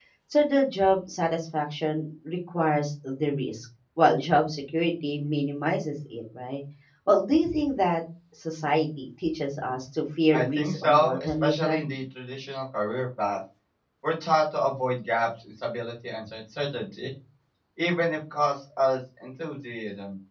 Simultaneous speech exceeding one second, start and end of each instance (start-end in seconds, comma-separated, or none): 10.3-11.8